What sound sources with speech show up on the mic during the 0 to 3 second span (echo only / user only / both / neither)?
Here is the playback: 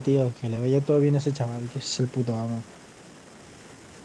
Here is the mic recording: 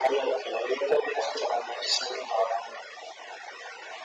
echo only